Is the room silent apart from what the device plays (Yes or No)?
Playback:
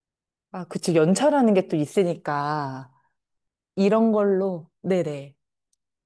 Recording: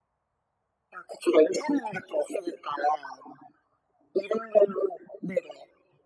Yes